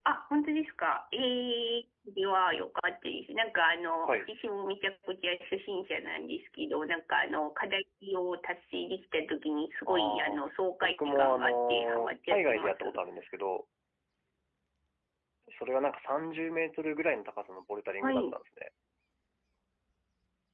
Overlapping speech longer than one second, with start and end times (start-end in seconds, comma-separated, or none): 10.8-13.0